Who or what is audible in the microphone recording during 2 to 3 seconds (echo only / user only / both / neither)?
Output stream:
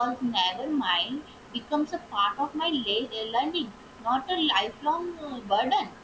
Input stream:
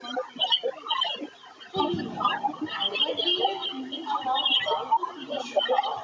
both